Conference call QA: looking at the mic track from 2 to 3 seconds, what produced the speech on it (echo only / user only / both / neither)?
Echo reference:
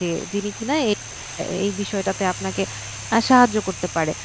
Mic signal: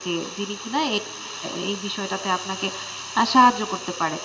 echo only